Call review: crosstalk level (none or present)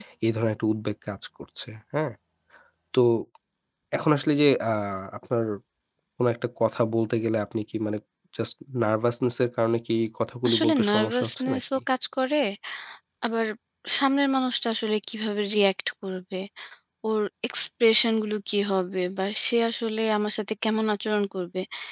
present